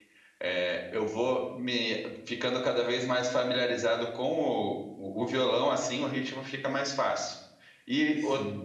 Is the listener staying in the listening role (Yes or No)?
Yes